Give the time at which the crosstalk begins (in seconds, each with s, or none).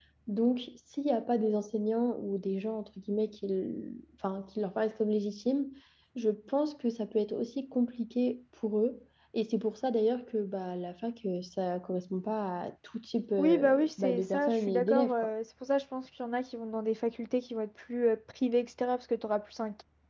13.4 s